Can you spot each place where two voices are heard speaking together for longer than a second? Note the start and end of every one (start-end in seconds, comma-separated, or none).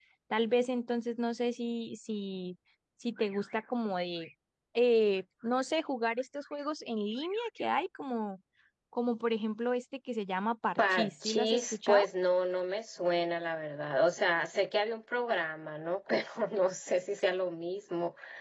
10.8-12.0